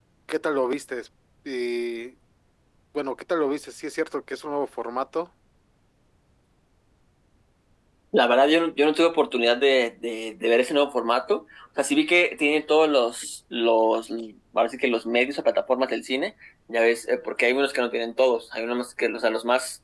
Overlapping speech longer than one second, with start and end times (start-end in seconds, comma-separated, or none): none